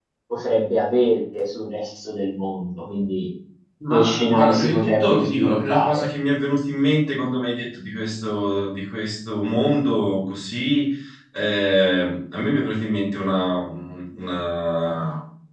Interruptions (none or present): present